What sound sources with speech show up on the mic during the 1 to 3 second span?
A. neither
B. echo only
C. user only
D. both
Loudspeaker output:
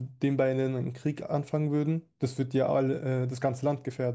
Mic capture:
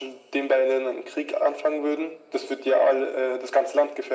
B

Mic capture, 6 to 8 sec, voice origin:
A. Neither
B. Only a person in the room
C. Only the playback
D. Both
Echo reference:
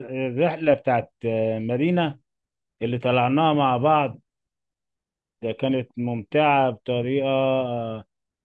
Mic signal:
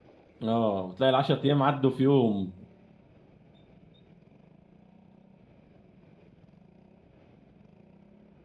A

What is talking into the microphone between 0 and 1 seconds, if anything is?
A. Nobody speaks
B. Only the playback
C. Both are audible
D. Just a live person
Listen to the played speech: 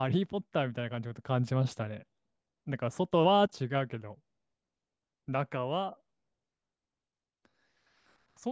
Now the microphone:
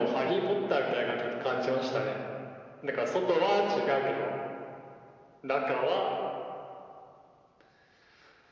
B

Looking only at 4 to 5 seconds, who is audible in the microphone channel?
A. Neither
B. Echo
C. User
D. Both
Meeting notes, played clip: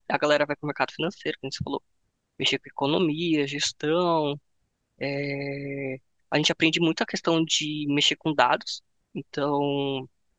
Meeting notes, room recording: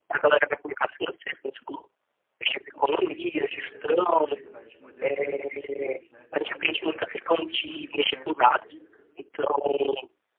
D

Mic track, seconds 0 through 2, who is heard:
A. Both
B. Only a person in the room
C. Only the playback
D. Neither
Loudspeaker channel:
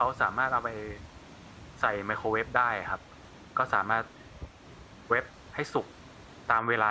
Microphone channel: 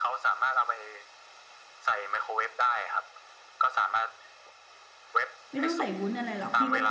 C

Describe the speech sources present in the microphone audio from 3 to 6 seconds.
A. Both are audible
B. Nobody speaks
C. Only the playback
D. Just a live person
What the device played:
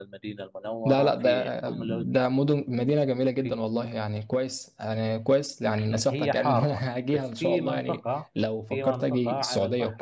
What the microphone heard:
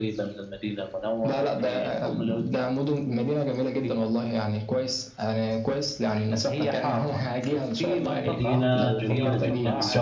C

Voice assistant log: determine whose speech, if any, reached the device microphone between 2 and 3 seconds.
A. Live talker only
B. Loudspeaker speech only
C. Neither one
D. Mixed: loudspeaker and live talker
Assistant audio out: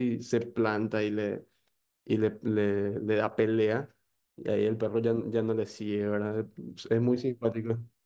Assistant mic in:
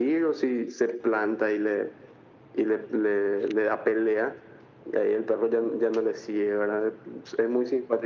B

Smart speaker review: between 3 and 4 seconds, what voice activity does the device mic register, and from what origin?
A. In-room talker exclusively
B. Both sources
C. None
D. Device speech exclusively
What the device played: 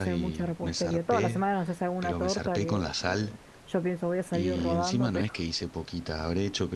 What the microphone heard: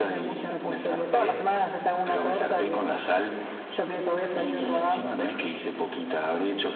D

